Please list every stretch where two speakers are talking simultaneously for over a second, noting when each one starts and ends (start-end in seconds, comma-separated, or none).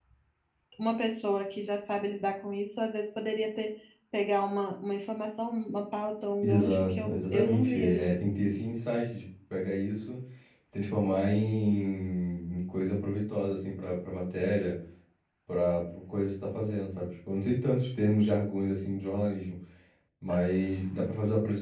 6.4-8.2